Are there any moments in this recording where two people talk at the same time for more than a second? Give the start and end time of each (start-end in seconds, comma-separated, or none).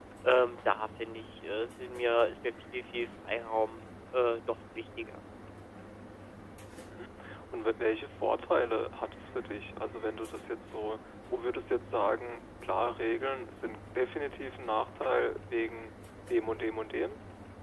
none